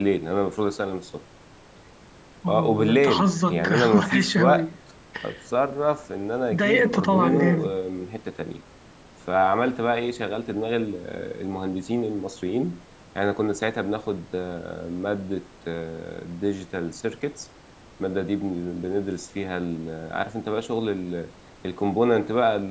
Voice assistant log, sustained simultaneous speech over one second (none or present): present